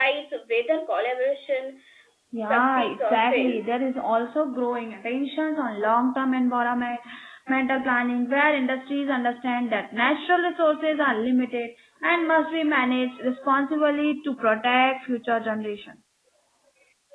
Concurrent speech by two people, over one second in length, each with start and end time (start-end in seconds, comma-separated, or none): 2.4-3.8